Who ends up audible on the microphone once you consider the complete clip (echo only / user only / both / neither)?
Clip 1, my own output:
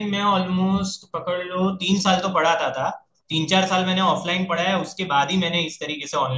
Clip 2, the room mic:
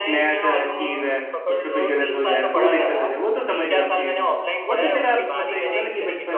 both